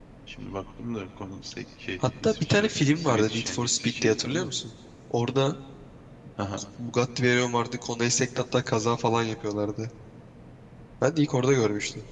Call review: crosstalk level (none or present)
present